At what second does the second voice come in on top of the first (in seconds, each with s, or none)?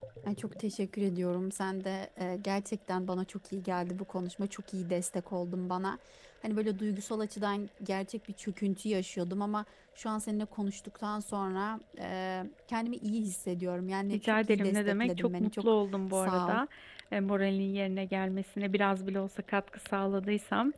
14.1 s